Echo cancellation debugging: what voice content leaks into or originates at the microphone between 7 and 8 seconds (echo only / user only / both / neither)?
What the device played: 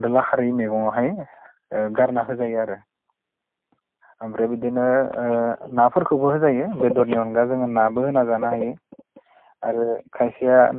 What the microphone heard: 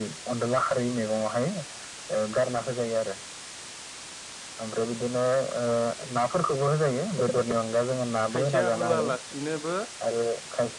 echo only